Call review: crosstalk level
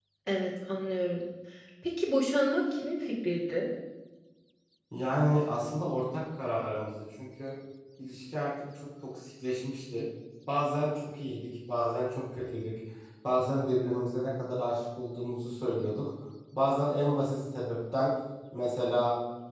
none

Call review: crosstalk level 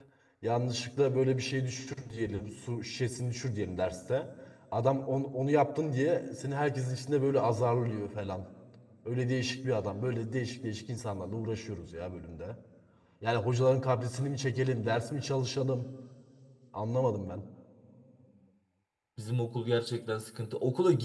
none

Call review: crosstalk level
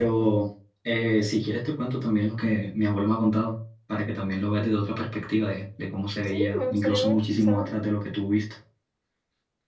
present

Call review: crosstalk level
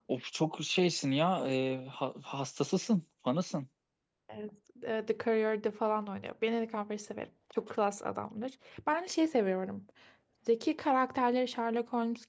none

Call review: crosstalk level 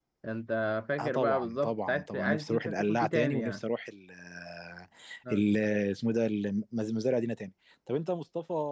present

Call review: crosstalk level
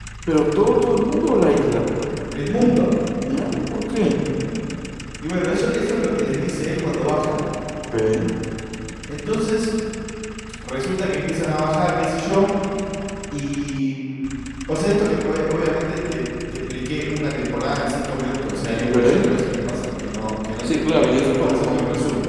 present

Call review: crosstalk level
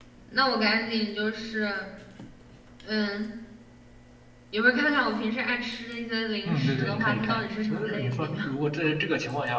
present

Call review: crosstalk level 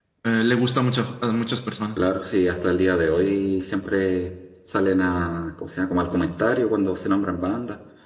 none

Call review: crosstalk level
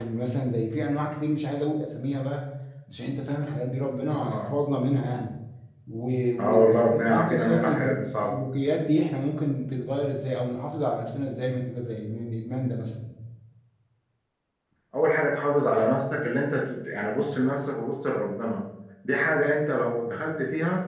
present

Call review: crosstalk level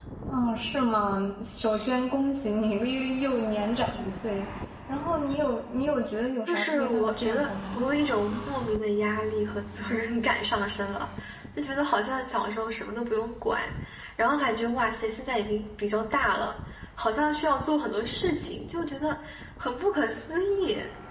present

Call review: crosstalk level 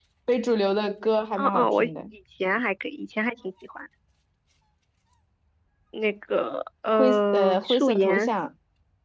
present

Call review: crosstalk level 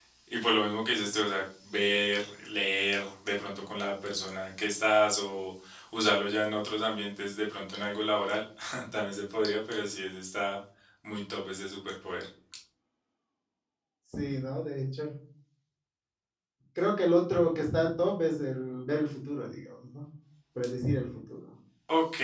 none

